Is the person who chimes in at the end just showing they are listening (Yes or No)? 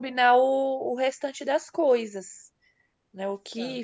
No